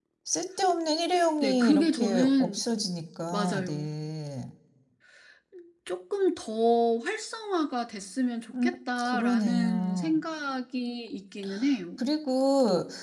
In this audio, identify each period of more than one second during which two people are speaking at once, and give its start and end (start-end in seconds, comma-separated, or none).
1.4-2.6, 8.6-10.2